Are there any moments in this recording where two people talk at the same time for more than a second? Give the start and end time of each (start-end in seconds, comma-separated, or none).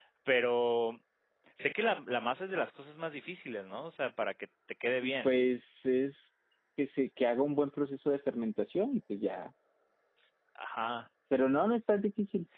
none